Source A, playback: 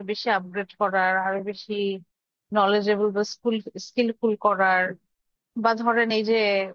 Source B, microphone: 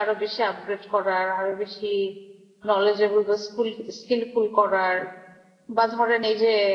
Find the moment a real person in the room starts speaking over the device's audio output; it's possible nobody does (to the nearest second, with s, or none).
none